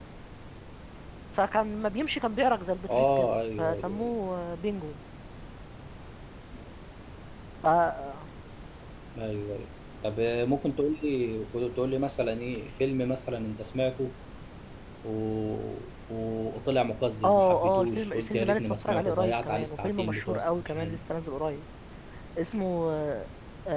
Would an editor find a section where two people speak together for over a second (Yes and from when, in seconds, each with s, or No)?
Yes, from 2.9 s